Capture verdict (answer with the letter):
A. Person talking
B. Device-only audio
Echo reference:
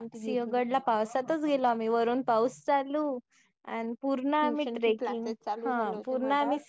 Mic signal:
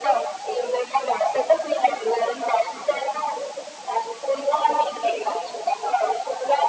B